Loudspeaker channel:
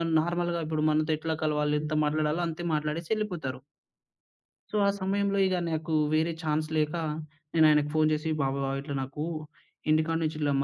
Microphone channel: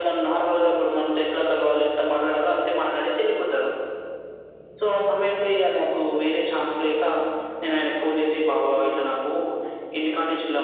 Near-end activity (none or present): none